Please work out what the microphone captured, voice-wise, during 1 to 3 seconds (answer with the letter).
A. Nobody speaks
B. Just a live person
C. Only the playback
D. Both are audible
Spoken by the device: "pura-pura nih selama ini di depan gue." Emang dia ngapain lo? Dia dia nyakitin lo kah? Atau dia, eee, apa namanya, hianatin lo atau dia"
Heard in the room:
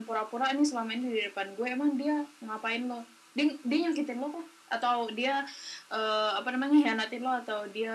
C